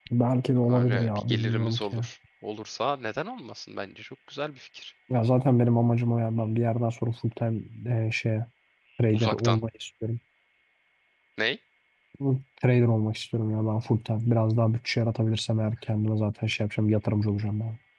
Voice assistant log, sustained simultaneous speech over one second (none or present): present